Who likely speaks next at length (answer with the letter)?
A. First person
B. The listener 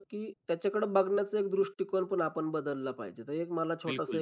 A